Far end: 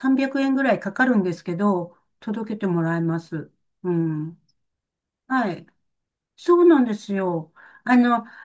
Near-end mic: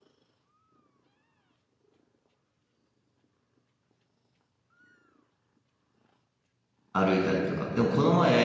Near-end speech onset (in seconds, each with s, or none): 6.9 s